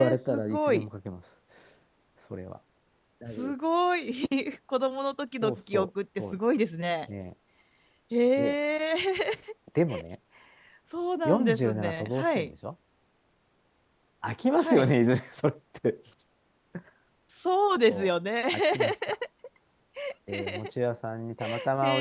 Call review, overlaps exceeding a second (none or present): present